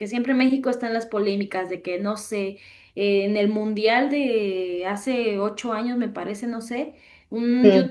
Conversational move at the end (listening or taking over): listening